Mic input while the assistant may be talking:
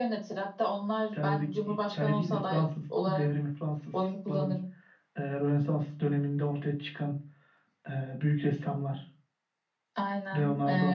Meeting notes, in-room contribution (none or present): none